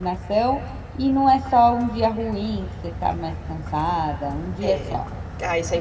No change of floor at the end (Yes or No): No